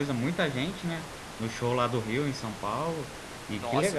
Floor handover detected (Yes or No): Yes